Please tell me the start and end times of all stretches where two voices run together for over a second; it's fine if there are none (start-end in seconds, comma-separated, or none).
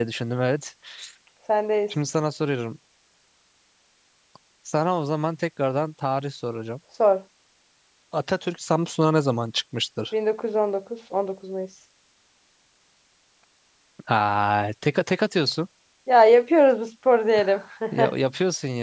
none